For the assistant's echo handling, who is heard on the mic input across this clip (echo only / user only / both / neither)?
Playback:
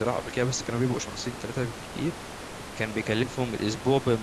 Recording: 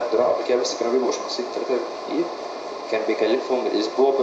echo only